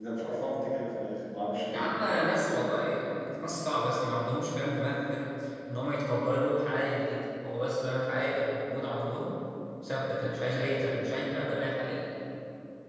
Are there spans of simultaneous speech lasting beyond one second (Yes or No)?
No